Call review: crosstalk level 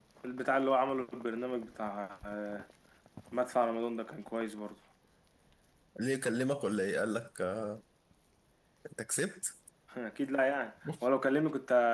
none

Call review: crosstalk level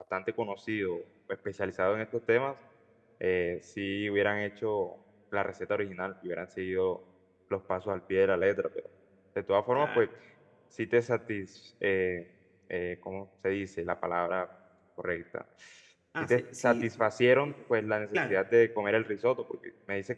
present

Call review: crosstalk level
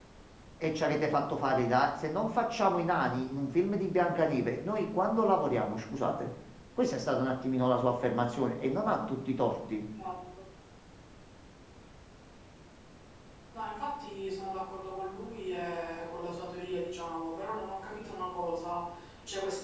none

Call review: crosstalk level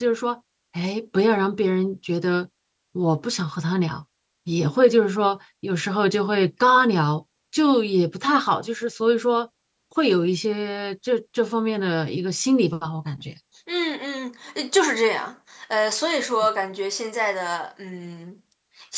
none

